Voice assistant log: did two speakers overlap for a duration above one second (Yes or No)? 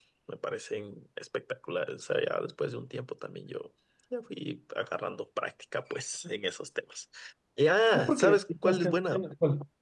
Yes